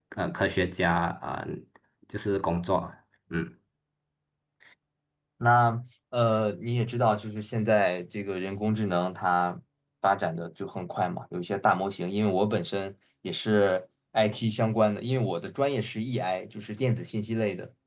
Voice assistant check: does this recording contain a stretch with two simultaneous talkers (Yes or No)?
No